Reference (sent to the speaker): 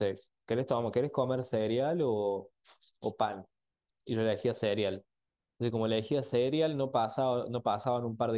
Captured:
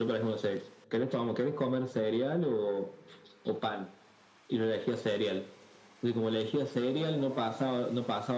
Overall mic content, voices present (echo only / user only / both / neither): both